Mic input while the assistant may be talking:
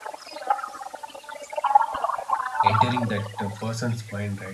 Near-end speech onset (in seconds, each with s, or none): 2.6 s